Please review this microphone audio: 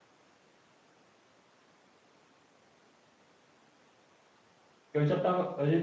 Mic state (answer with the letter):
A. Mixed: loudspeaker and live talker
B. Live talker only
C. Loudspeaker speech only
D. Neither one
B